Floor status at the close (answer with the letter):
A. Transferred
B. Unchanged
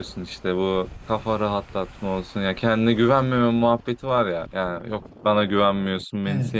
B